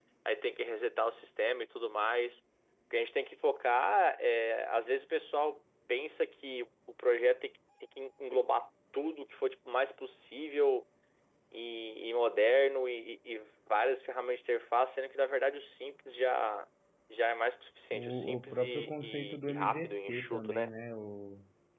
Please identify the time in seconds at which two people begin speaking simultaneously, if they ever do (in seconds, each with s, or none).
17.9 s